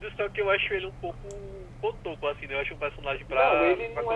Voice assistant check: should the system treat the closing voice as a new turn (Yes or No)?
Yes